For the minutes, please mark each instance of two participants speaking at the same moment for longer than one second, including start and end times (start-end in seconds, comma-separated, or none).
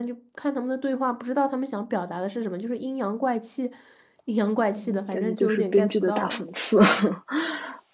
4.7-6.4